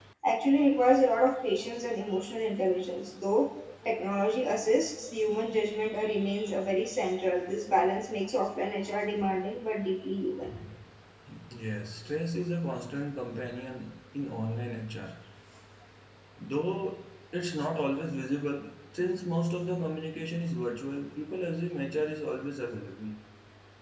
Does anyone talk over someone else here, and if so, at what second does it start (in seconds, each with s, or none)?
none